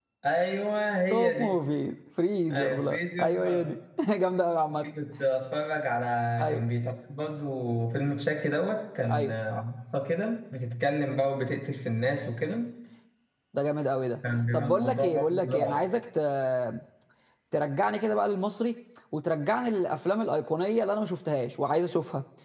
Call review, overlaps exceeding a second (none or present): present